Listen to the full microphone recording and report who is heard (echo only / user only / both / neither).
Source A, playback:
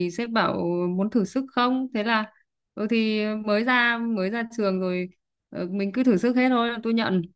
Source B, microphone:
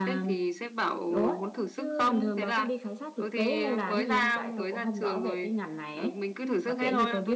both